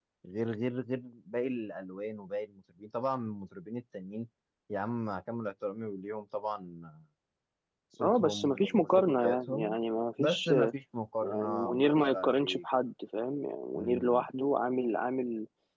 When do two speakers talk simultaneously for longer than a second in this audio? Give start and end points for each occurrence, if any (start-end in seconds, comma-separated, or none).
8.0-9.8, 11.2-12.6